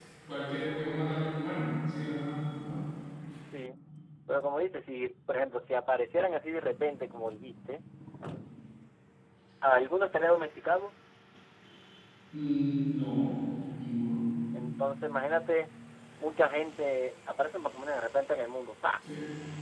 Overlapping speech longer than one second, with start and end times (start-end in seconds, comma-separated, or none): none